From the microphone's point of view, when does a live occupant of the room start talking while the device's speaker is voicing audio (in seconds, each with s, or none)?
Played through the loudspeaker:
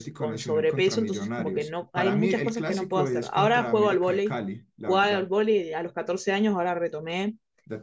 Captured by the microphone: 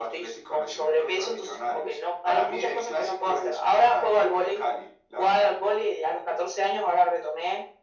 none